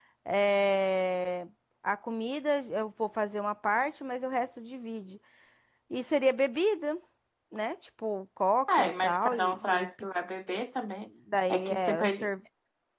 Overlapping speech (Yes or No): Yes